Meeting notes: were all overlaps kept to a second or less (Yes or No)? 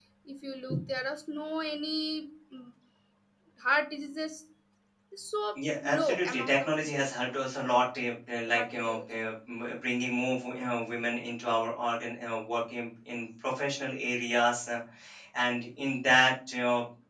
No